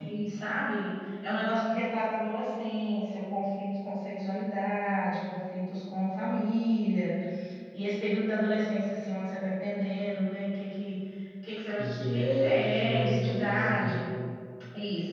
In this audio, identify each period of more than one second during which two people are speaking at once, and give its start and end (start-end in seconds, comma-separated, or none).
11.8-14.1